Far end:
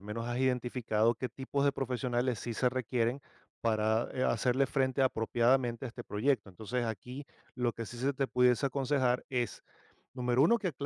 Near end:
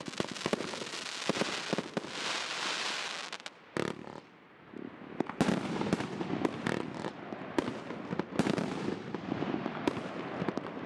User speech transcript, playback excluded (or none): none